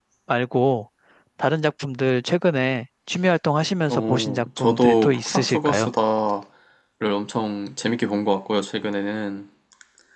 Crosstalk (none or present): present